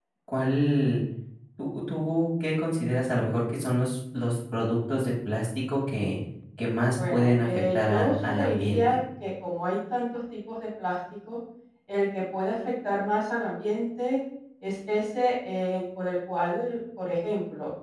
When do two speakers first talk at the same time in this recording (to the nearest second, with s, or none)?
7 s